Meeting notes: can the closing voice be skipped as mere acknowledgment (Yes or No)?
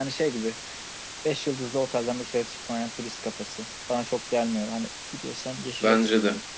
No